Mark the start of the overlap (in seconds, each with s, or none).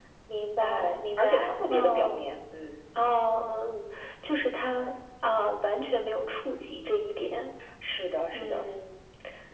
0.6 s